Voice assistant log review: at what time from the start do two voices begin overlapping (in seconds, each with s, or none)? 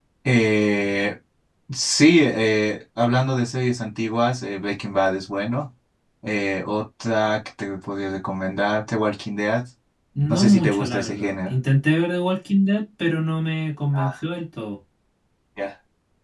10.3 s